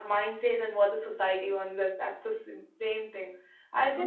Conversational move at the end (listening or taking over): listening